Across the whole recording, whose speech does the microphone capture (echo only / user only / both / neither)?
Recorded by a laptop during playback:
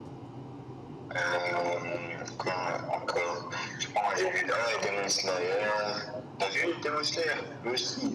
echo only